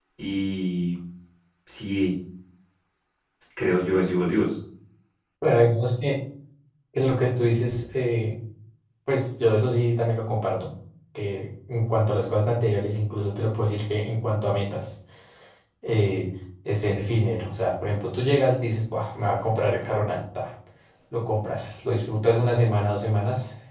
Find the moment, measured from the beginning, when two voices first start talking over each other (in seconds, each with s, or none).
none